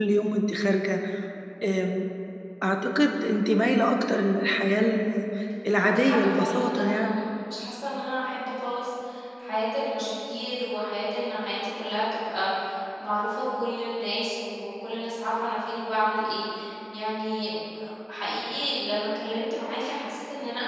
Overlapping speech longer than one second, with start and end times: 5.8-7.1

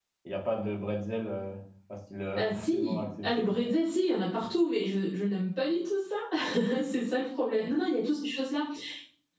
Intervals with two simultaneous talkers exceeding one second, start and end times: 2.4-3.6

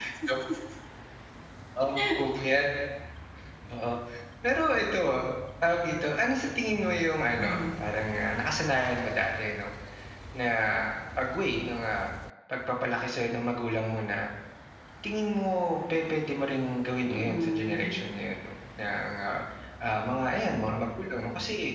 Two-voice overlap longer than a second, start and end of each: 17.1-18.4

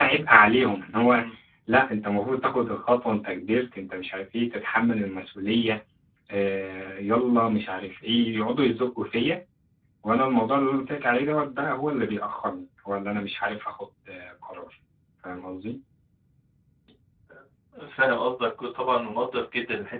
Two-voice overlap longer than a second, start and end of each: none

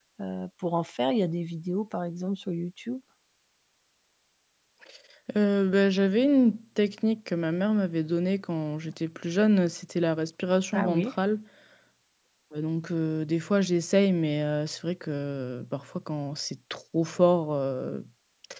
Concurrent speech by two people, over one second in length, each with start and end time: none

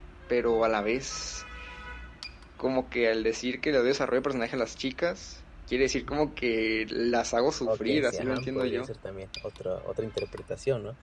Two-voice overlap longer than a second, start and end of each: 7.6-8.9

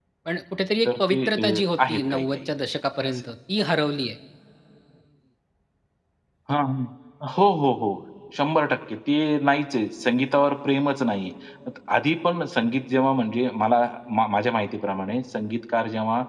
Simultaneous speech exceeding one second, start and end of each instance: 0.8-2.4

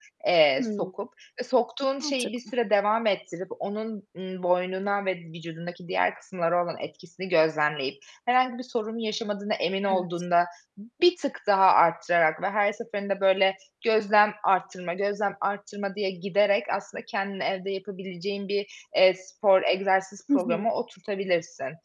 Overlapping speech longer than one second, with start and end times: none

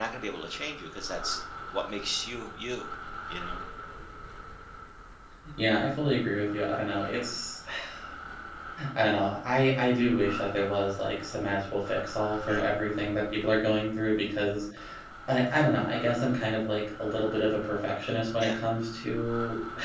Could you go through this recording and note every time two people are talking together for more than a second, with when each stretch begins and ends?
none

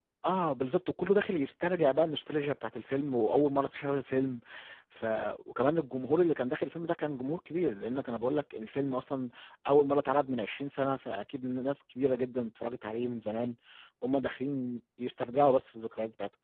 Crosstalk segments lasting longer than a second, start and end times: none

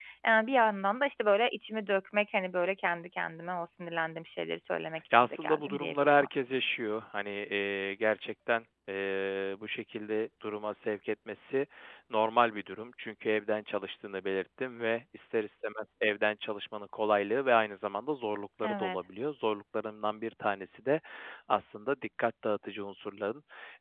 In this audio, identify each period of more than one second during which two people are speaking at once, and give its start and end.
5.1-6.4

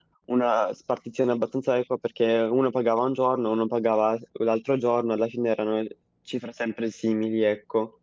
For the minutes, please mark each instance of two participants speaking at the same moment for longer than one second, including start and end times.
none

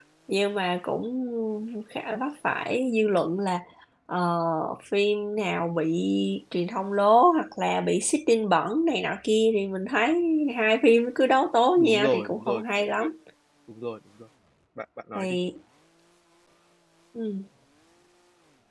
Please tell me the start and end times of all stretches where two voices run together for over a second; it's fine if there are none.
11.8-13.1

